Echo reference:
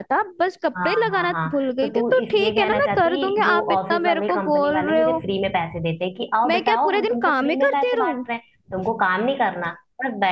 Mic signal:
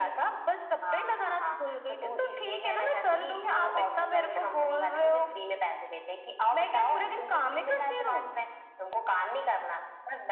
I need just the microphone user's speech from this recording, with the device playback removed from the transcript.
none

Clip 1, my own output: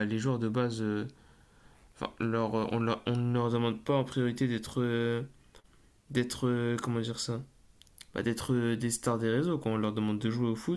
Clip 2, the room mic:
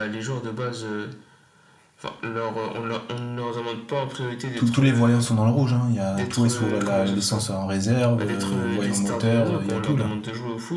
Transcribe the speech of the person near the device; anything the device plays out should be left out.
tout- tous les voyants sont dans le rouge, hein. Il y a, tout est sous la- l'essence en réserve, euh, voyant moteur, euh, il y a tout là.

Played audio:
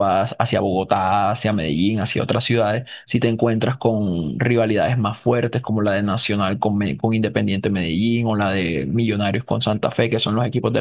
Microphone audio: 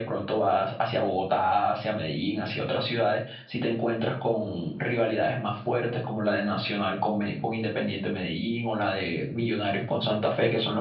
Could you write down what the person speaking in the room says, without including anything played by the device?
none

